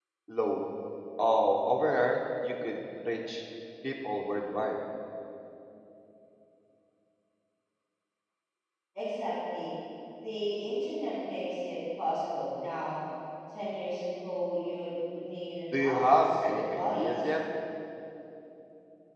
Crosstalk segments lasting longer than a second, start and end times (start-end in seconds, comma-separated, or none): 15.7-17.3